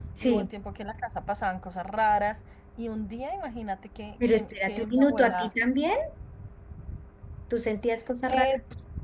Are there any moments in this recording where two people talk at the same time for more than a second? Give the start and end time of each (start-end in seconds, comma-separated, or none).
4.3-5.5